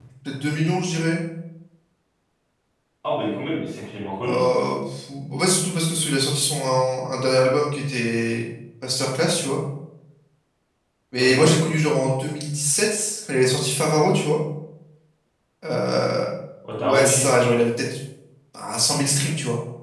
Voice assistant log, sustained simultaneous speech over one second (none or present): none